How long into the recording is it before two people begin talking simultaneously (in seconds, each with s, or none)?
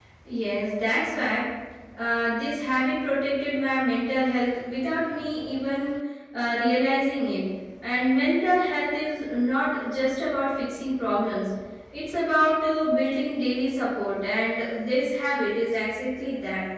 none